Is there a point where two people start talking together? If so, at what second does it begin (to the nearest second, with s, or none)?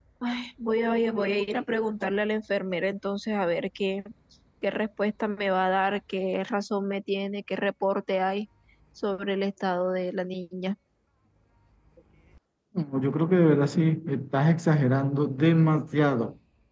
none